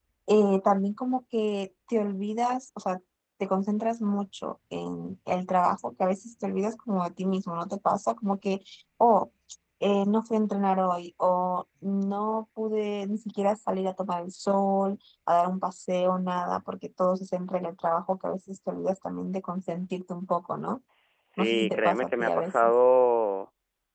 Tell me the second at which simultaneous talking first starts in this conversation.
21.4 s

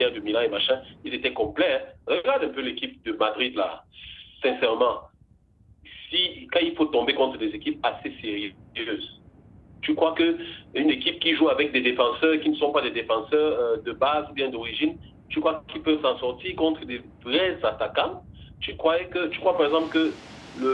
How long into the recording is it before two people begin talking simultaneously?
none

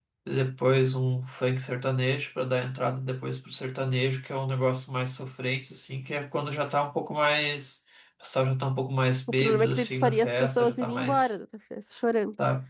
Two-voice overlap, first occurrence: 9.4 s

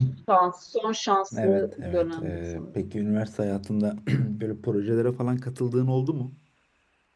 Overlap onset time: 1.3 s

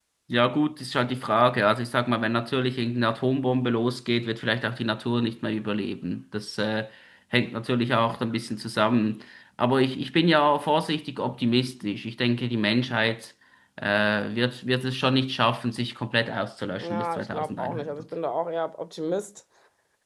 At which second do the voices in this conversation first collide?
16.8 s

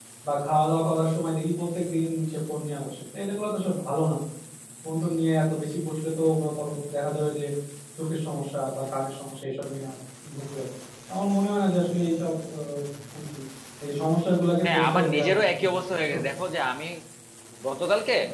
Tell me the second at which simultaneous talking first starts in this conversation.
14.6 s

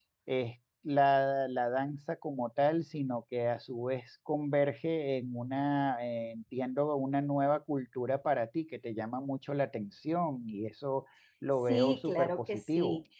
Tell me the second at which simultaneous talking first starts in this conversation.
11.7 s

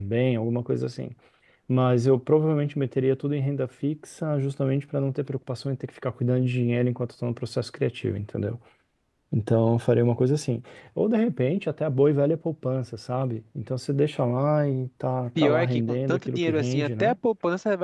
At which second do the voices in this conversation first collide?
15.3 s

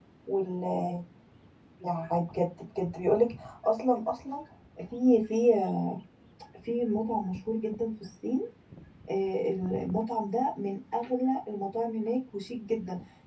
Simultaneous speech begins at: none

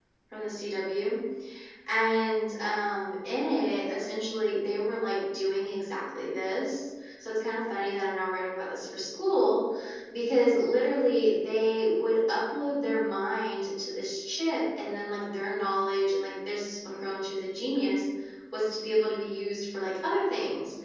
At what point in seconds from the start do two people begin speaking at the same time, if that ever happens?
none

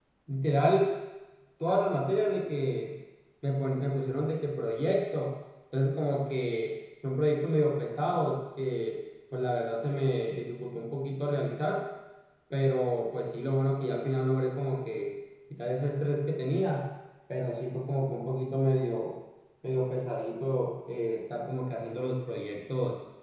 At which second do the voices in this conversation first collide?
none

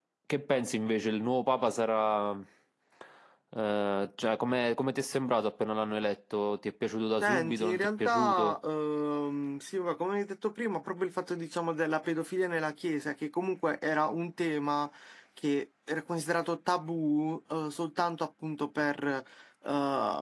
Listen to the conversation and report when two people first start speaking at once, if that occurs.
7.2 s

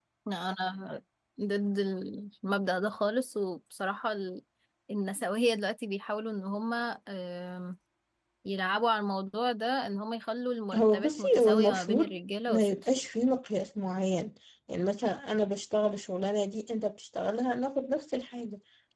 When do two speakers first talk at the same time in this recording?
10.7 s

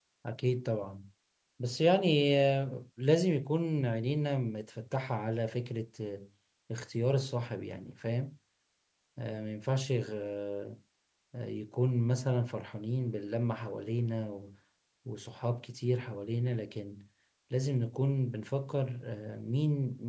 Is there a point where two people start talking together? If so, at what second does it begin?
none

